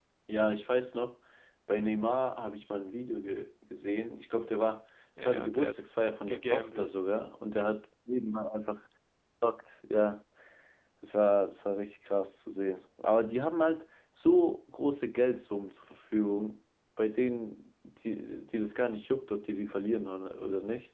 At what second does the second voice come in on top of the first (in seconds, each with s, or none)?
5.2 s